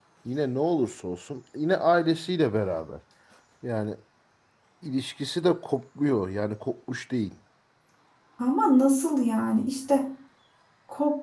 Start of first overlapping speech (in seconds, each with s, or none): none